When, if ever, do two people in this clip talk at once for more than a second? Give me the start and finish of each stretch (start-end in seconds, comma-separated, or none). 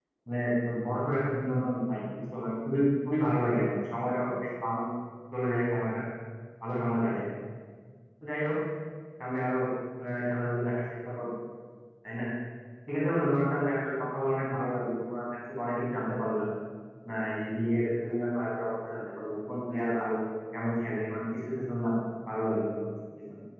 none